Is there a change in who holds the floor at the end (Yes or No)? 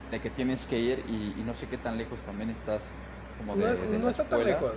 Yes